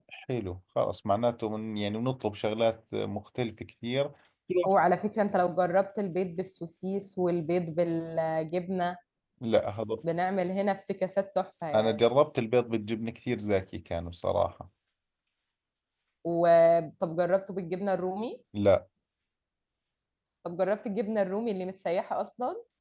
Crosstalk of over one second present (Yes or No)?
No